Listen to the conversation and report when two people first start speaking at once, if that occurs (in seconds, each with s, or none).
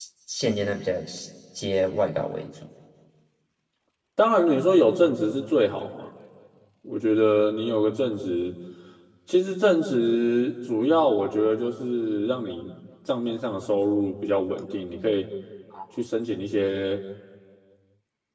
none